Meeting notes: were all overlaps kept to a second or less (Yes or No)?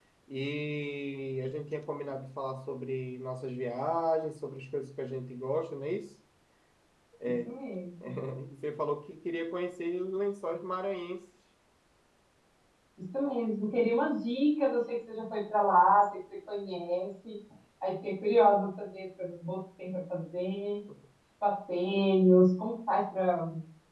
Yes